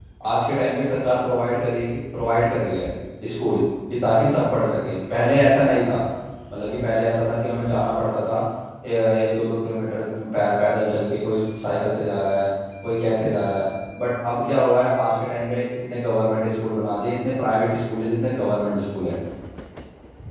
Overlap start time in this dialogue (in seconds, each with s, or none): none